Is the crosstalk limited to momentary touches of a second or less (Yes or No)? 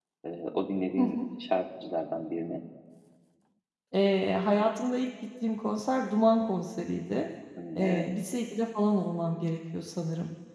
Yes